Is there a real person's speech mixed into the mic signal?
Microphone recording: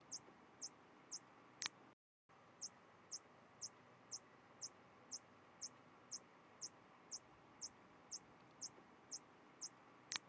No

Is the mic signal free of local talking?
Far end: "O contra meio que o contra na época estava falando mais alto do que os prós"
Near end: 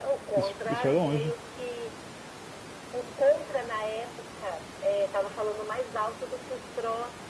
No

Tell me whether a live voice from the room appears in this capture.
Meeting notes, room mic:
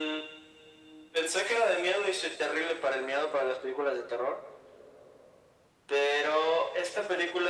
No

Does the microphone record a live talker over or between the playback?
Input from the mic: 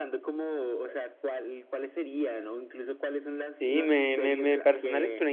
Yes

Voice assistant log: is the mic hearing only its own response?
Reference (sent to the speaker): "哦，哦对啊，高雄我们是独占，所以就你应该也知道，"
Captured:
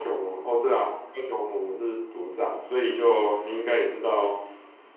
Yes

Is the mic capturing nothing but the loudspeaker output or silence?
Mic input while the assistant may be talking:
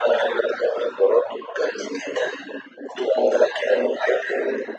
Yes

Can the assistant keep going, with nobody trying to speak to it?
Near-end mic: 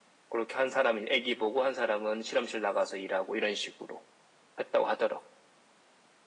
Yes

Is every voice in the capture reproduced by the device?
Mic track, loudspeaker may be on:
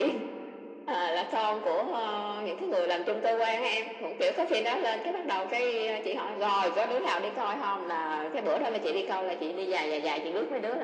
Yes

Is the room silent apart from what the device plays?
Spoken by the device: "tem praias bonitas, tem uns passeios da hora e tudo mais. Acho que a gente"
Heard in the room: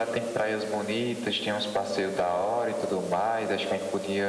Yes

